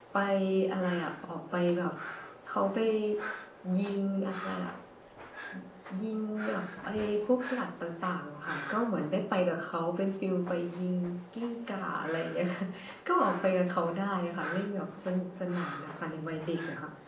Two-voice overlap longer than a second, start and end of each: none

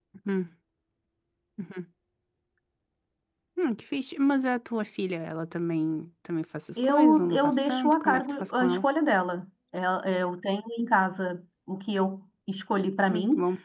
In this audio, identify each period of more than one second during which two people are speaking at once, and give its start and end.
6.8-8.9

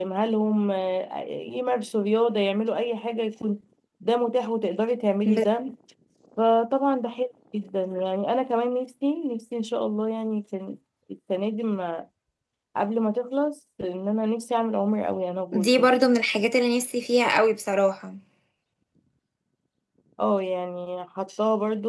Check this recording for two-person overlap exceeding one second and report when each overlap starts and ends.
none

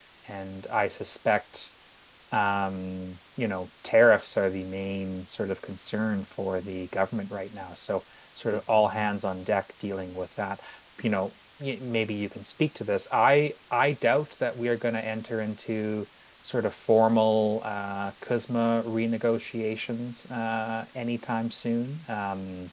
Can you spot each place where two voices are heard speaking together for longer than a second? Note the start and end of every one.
none

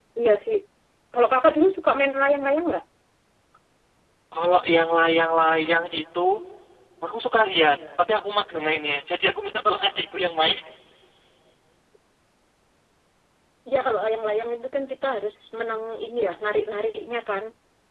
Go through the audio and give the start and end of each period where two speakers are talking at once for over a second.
none

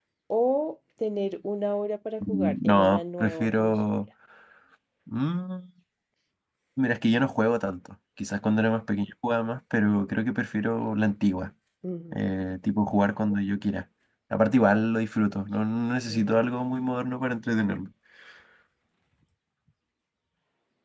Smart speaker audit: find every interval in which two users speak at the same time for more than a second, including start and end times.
2.2-4.0

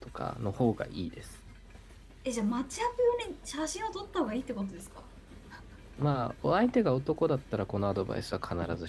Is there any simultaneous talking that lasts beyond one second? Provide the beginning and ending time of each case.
none

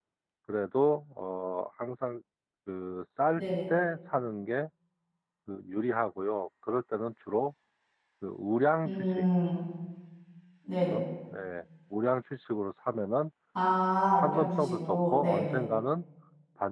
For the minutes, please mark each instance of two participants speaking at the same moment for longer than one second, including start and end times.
14.2-15.6

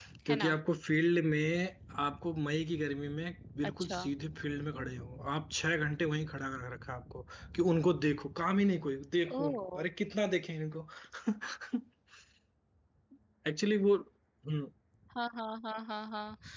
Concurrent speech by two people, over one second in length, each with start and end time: none

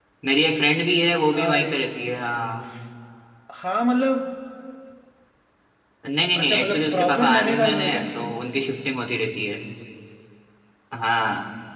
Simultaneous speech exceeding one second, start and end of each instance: 6.4-8.3

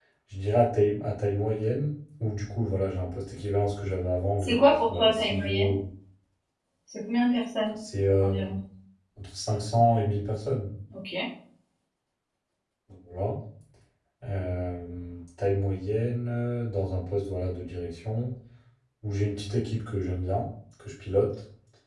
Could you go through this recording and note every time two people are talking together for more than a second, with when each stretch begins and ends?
4.4-5.7

